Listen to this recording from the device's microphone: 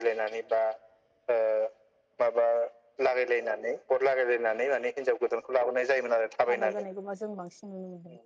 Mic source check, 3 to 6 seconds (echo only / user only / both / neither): echo only